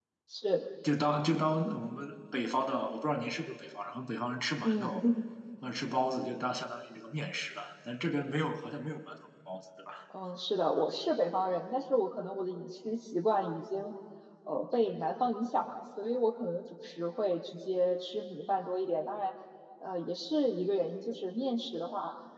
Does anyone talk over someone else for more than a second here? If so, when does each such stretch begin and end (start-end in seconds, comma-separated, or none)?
none